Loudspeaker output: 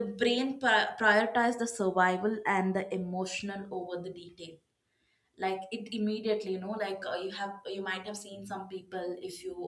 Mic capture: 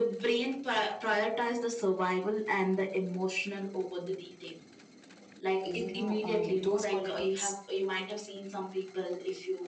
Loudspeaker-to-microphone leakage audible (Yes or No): Yes